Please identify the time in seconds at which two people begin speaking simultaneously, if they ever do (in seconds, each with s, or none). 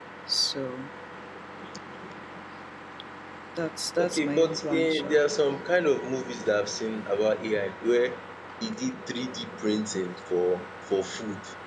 4.0 s